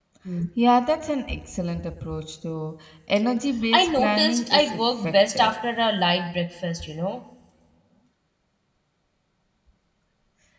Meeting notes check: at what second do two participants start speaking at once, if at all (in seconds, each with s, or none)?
3.7 s